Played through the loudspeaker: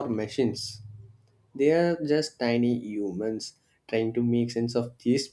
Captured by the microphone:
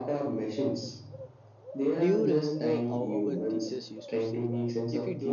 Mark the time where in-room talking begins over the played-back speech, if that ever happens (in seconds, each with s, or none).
2.0 s